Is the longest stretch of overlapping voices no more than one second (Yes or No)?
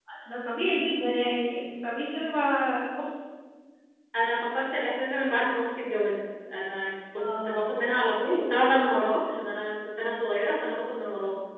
Yes